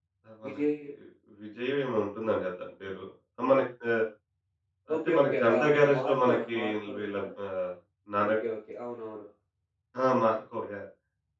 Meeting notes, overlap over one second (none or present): present